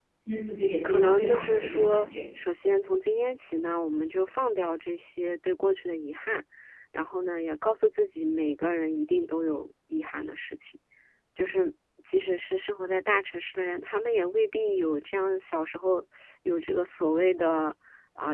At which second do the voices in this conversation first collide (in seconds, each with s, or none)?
0.8 s